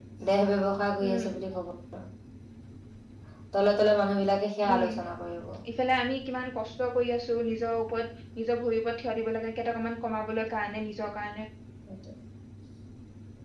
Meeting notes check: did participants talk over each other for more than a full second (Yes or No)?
No